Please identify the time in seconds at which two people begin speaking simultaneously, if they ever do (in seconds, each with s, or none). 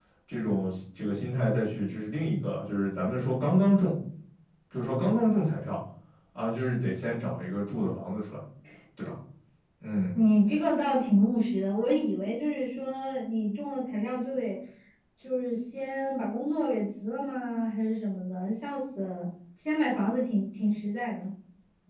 none